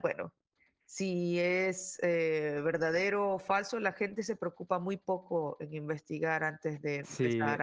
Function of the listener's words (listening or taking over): taking over